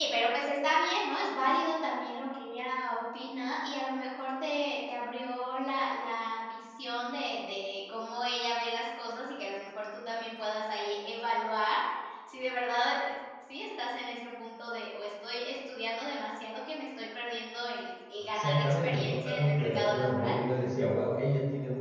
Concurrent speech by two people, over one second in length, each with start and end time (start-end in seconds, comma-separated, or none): 18.4-20.4